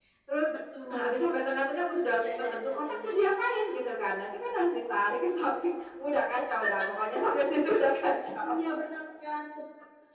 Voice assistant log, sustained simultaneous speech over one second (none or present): present